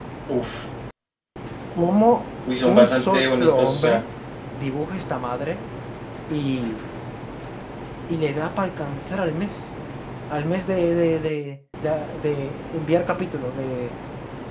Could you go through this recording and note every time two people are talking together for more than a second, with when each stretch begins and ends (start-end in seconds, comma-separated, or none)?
2.6-4.0